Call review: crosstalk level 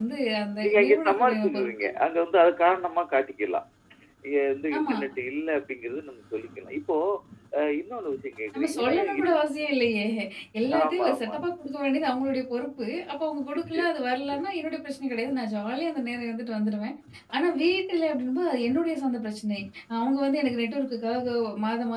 present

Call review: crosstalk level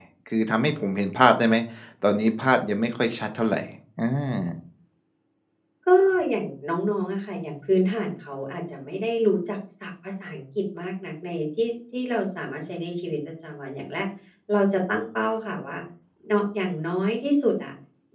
none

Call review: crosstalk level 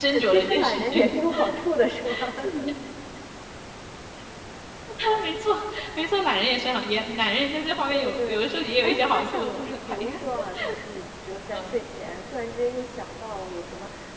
present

